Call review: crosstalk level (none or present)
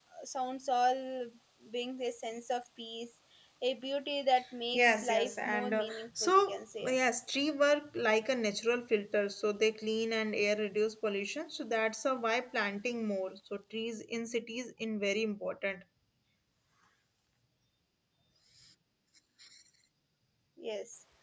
present